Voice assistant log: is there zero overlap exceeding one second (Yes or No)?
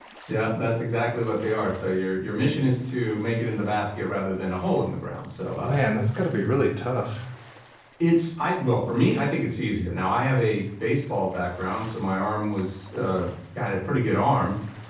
Yes